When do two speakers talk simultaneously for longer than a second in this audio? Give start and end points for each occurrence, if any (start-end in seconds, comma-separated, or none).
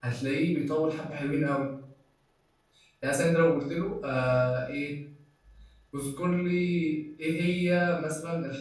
none